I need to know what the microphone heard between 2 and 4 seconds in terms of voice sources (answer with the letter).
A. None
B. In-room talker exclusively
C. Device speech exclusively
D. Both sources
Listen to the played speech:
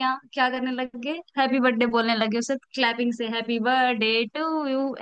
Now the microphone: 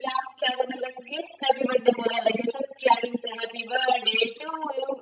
C